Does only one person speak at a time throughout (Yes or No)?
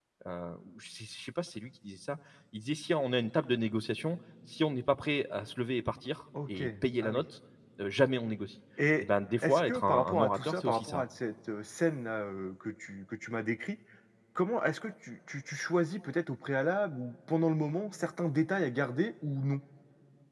No